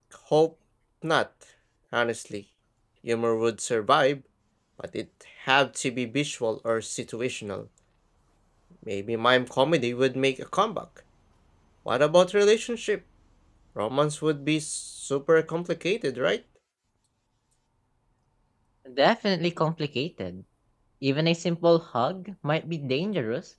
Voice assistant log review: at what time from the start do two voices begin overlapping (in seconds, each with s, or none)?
none